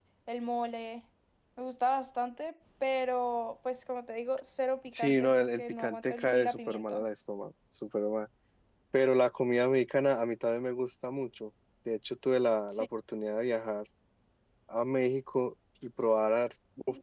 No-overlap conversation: No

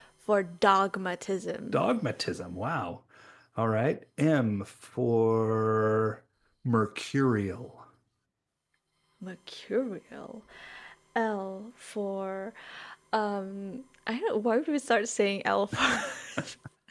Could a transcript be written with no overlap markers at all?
Yes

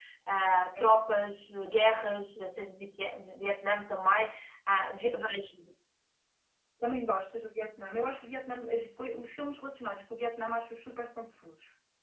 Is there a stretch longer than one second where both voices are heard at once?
No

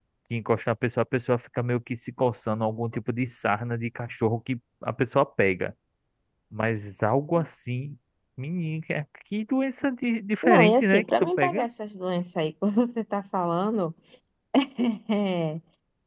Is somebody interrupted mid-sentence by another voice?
Yes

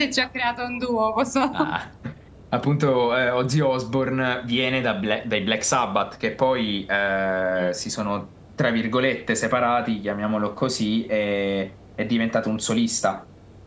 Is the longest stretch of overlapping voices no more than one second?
Yes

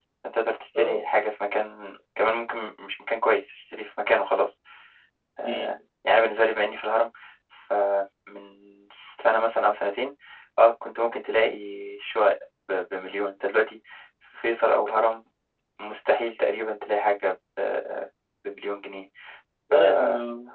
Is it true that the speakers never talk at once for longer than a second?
Yes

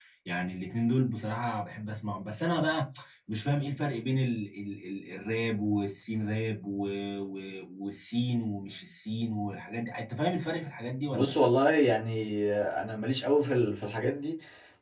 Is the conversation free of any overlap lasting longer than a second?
Yes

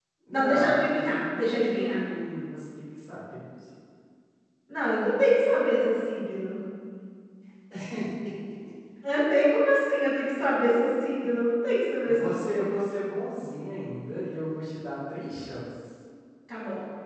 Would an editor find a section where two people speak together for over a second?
Yes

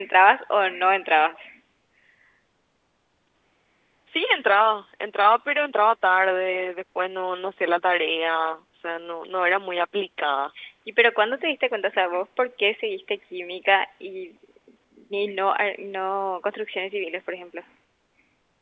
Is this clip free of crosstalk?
Yes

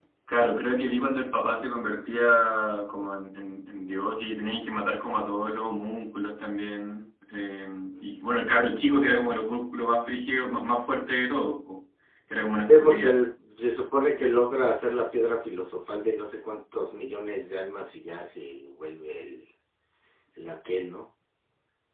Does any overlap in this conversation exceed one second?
No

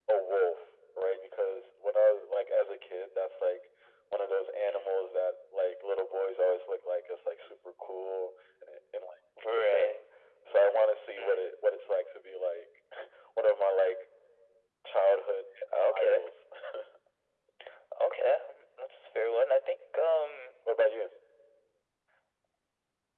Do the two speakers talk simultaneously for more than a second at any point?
No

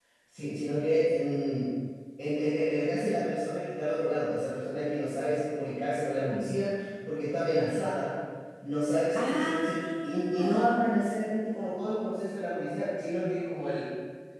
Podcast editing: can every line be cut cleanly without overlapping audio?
No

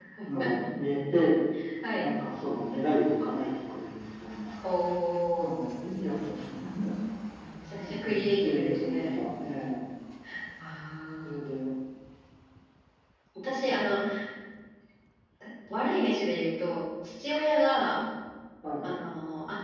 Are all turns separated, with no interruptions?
No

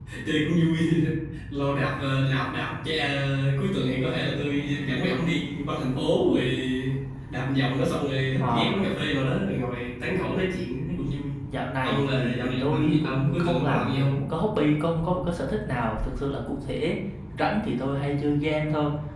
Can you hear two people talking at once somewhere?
Yes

